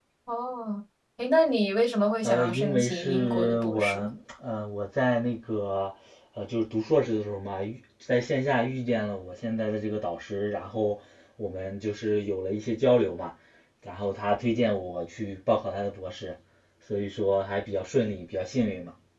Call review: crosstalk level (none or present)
present